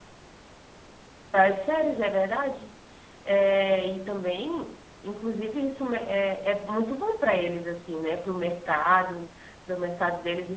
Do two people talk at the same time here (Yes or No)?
No